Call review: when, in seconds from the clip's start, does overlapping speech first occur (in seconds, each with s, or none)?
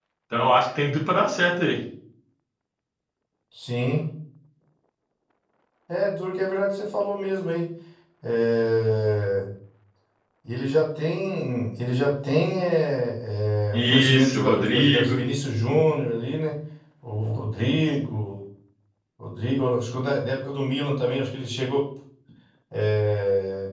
13.7 s